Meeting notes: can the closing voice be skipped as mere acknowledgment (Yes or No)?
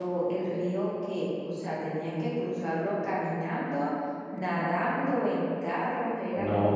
No